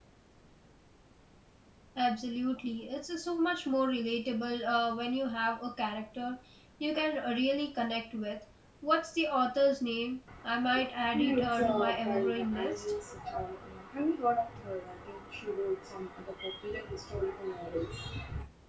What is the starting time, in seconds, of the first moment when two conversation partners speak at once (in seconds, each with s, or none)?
11.1 s